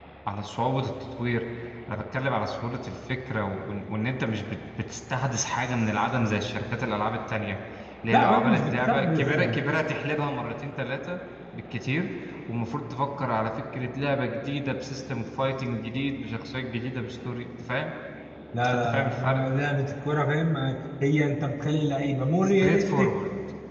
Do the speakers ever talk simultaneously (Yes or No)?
Yes